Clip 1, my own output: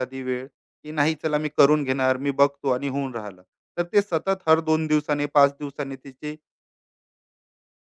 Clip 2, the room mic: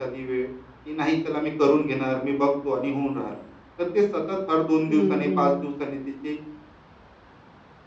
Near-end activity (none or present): present